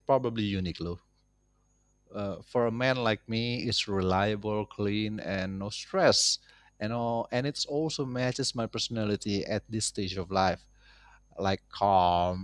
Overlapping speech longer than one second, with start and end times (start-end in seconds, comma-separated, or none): none